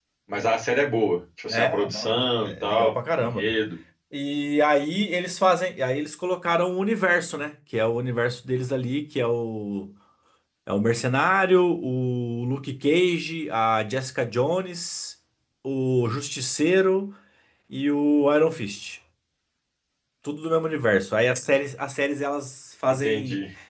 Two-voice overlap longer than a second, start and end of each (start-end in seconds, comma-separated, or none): 1.5-3.5